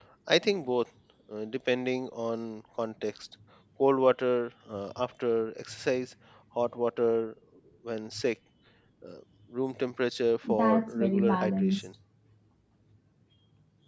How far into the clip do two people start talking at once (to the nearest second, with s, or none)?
10 s